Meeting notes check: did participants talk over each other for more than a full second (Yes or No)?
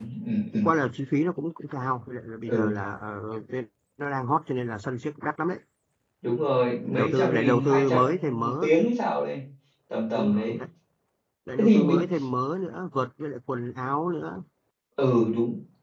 Yes